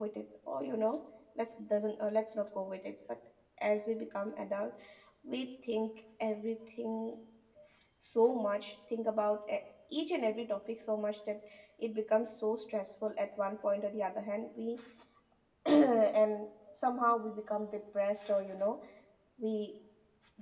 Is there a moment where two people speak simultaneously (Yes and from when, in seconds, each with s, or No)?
No